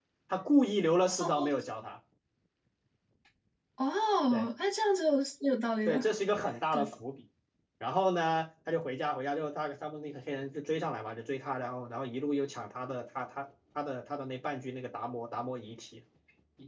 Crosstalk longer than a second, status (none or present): none